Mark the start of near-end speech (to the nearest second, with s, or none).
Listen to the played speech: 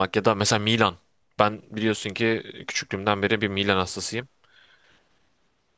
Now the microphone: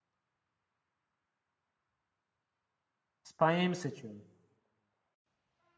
3 s